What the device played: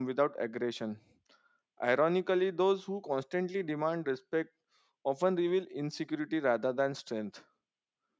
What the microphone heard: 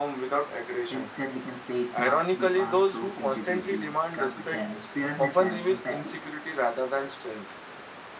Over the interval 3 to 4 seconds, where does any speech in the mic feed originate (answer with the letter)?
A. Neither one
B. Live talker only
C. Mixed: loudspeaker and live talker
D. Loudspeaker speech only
C